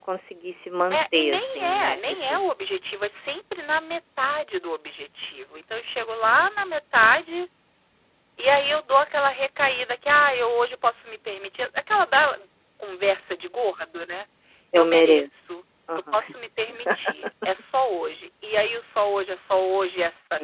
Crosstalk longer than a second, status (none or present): present